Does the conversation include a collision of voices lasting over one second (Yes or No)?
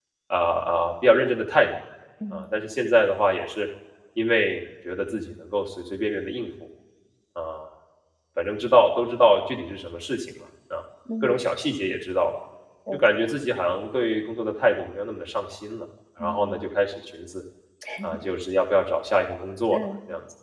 No